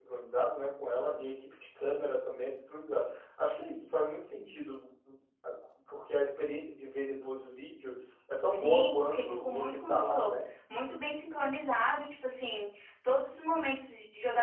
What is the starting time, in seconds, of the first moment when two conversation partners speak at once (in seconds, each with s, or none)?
8.5 s